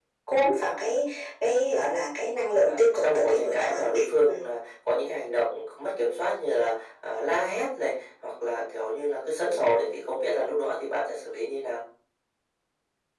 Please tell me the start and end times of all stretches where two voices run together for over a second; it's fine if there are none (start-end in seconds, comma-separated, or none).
2.7-4.4